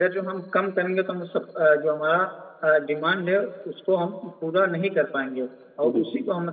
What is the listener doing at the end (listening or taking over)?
listening